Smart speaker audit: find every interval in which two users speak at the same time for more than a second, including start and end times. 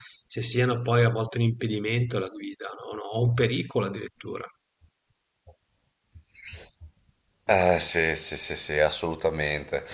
none

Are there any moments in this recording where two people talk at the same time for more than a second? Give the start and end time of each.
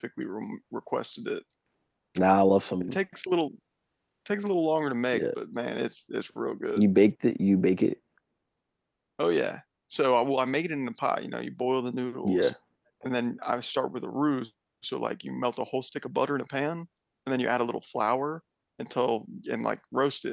none

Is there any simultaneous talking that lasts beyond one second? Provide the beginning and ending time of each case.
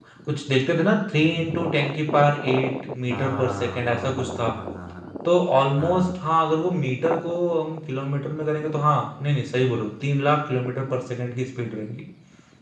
3.1-4.5

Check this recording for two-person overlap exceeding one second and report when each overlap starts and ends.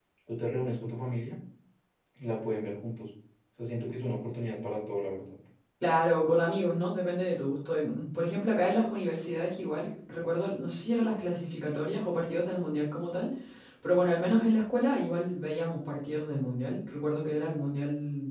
none

